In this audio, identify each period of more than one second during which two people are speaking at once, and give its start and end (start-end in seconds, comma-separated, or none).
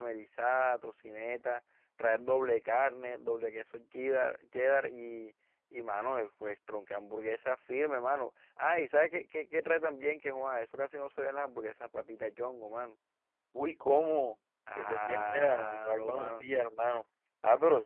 14.8-16.4